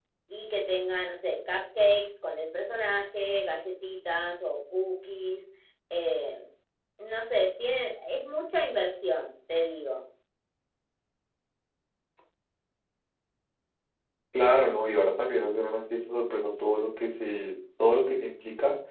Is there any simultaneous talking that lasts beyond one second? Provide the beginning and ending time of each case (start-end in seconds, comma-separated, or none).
none